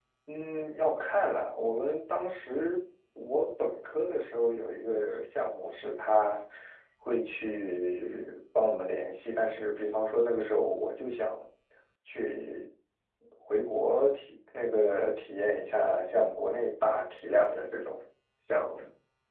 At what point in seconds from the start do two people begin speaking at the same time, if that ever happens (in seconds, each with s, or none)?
none